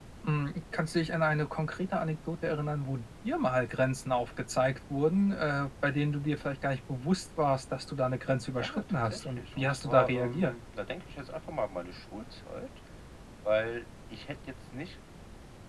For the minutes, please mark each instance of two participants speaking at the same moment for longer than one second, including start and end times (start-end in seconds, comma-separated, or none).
8.6-10.5